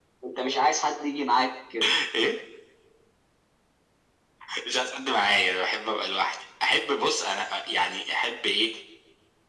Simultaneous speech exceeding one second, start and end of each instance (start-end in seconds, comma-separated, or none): none